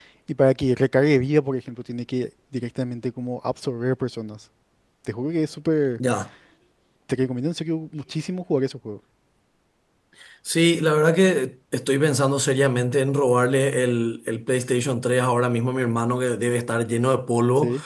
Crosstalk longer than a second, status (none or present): none